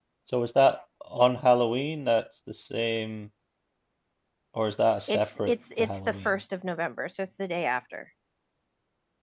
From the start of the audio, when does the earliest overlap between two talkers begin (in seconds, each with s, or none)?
5.1 s